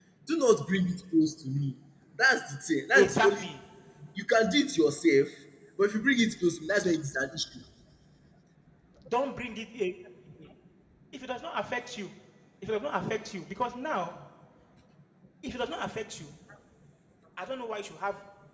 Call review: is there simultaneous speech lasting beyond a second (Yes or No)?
No